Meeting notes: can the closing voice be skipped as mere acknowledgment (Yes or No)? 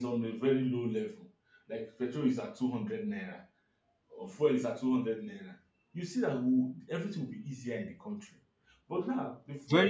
Yes